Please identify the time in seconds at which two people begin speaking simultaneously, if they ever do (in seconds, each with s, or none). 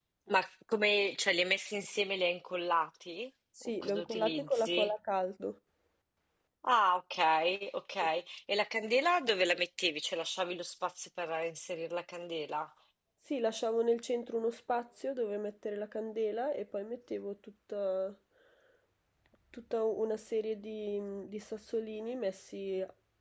3.6 s